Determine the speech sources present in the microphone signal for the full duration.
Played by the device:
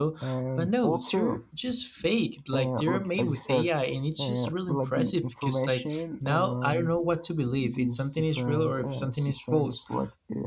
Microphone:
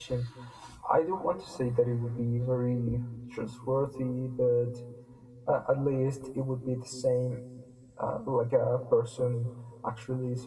user only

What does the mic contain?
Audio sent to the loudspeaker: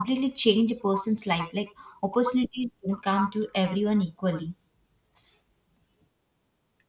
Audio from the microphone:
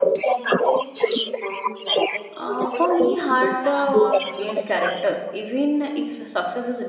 both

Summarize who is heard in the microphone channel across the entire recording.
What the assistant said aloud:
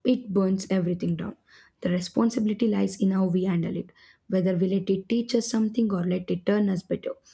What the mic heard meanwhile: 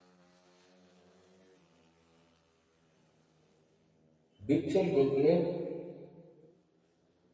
user only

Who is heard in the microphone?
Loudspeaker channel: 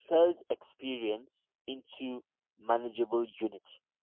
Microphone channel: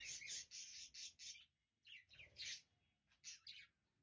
neither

